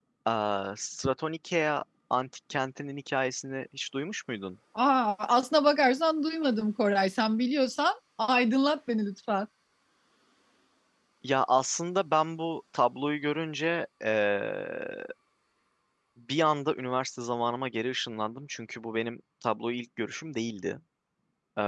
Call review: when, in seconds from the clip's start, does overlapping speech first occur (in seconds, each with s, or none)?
none